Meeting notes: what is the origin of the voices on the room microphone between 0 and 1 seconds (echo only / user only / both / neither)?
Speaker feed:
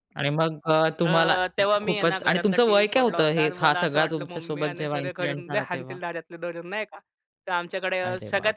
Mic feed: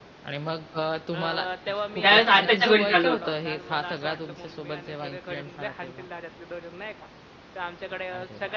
echo only